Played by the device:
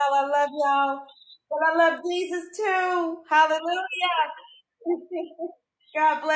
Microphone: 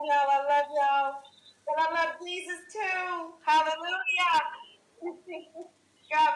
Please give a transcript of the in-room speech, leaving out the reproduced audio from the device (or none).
none